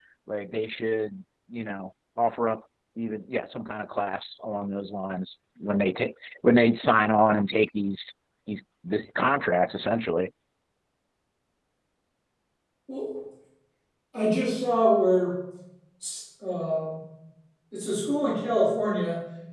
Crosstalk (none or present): none